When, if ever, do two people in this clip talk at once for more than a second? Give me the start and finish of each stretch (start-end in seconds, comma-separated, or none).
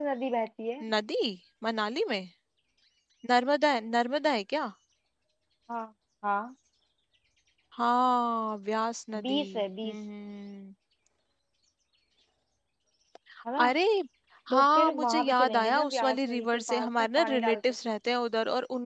14.5-17.6